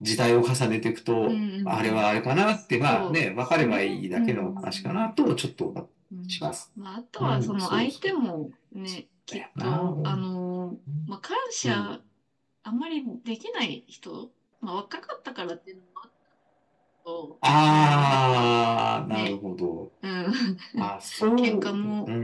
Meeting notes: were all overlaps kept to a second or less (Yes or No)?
No